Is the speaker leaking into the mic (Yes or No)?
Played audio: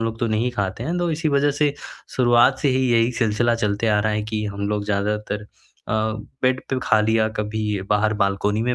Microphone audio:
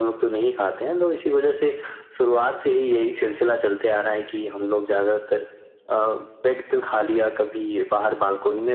Yes